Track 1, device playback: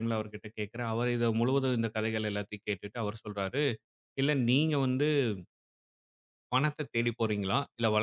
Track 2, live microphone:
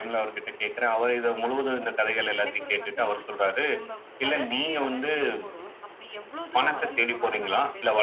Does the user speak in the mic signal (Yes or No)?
Yes